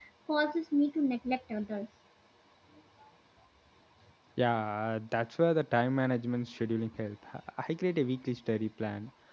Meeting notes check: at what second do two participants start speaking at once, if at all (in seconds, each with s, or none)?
none